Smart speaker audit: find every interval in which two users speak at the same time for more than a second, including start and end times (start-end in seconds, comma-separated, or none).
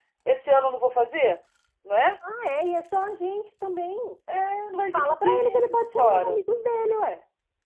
4.9-6.4